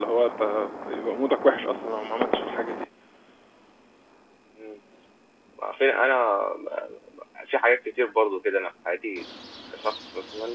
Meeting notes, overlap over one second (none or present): none